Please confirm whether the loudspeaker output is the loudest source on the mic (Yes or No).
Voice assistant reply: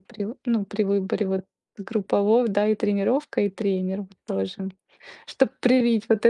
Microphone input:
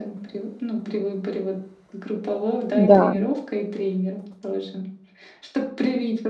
No